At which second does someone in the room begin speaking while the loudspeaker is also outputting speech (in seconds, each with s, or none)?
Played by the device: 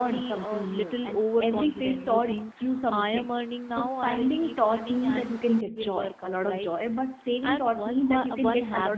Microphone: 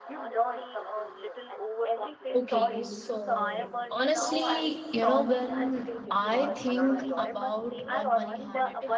2.3 s